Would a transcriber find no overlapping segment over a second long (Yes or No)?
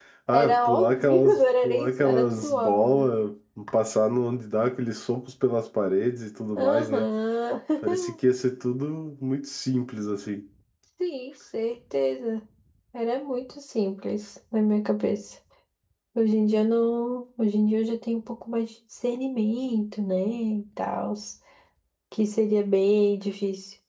No